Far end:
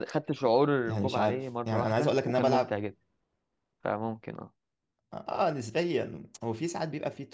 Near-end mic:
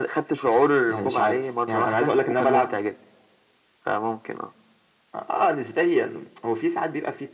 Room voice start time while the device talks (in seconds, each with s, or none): none